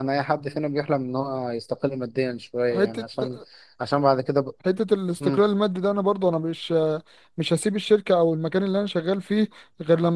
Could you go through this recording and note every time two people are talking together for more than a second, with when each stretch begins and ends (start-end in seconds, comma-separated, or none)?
none